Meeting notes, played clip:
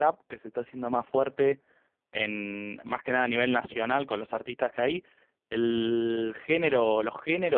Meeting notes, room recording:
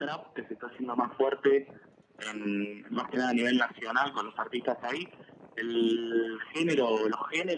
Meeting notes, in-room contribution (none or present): none